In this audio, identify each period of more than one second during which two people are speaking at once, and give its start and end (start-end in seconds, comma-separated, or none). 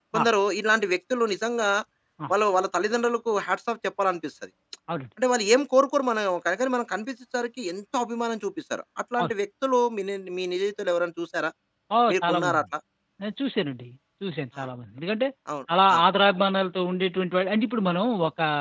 none